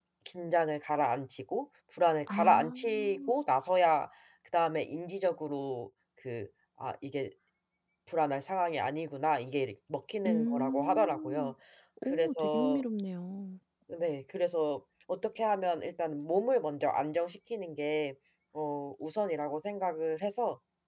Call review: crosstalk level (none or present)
present